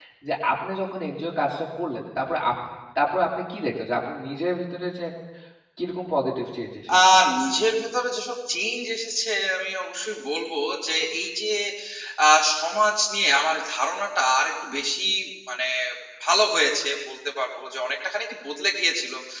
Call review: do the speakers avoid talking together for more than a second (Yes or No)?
Yes